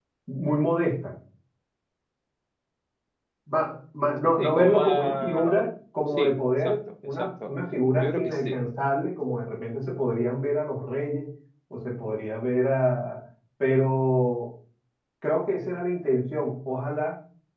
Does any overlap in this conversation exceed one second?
Yes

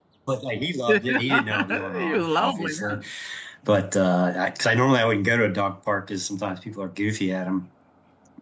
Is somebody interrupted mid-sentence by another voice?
Yes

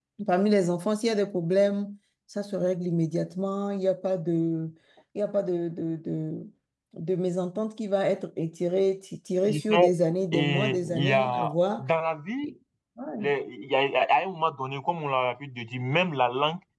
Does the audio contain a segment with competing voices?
Yes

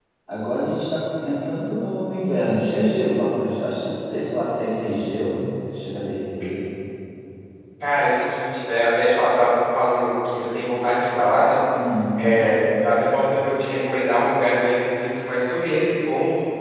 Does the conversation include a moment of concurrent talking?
No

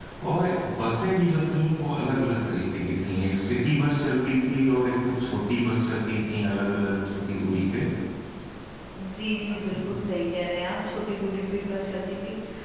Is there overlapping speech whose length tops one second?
No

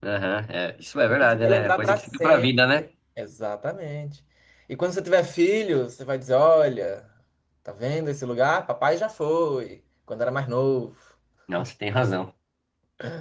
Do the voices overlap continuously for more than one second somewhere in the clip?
Yes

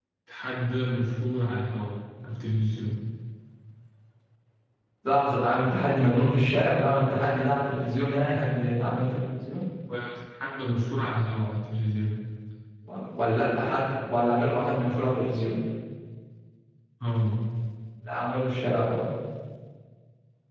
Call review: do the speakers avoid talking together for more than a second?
Yes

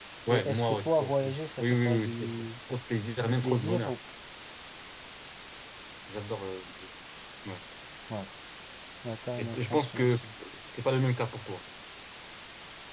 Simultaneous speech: Yes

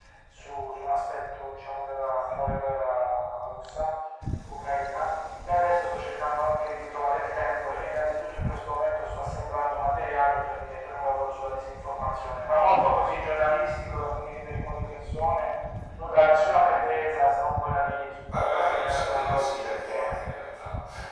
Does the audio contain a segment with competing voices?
Yes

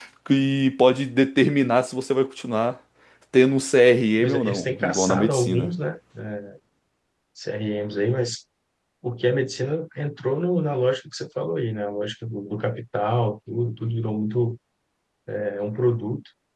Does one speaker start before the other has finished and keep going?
Yes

